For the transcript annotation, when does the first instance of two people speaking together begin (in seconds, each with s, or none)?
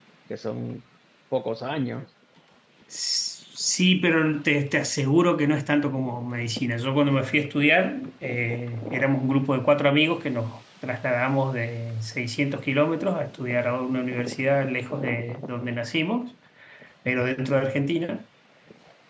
none